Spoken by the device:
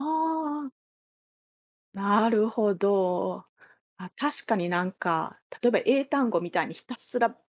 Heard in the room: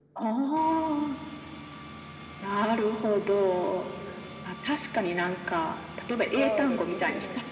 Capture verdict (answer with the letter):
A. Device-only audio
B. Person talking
B